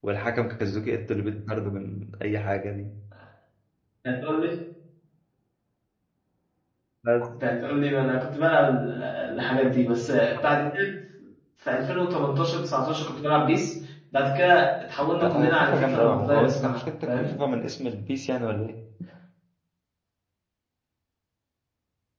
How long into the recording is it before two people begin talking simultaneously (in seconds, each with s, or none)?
15.2 s